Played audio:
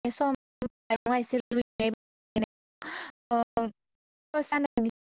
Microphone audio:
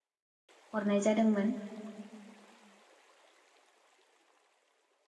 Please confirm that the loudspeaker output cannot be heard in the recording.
Yes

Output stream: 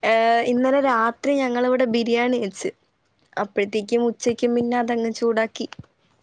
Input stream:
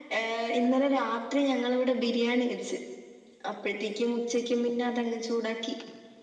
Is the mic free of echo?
No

